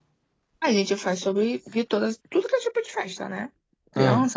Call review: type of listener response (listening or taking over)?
listening